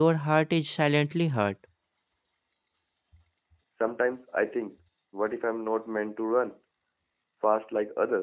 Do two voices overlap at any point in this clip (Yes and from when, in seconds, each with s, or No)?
No